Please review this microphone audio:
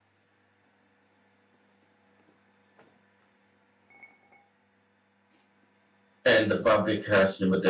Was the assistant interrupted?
Yes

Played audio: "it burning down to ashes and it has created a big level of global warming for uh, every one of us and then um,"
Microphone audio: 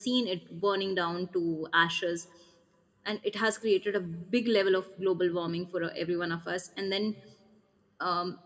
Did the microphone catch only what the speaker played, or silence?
Yes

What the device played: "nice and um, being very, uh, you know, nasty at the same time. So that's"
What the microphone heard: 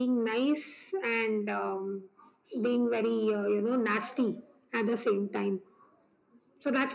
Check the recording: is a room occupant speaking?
No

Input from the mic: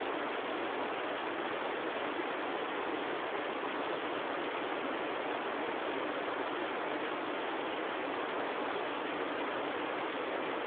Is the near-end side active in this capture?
No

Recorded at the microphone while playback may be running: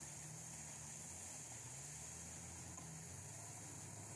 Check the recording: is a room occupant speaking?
No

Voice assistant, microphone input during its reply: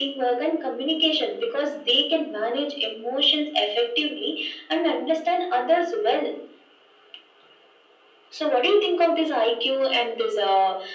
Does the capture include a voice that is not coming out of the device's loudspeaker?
No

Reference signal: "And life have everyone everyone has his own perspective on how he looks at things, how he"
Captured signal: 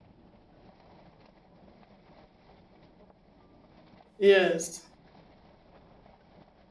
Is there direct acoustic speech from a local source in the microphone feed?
Yes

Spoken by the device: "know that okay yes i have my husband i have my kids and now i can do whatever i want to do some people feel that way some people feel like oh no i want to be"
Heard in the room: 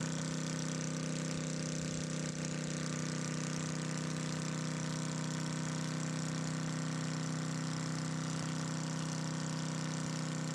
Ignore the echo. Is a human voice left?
No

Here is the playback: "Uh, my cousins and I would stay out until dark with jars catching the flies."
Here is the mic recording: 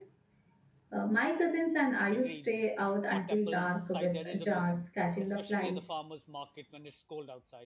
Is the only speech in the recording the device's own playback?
No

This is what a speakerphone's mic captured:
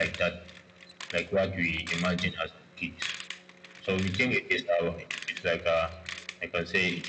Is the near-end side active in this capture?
No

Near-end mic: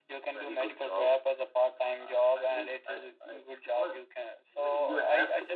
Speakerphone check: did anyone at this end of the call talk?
No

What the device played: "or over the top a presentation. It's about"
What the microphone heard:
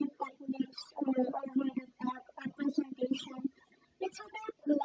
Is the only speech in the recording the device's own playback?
Yes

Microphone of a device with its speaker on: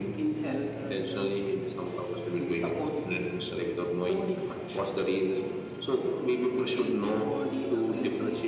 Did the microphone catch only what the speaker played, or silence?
Yes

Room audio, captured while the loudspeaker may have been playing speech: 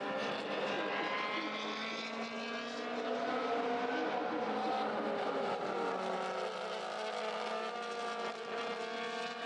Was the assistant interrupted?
No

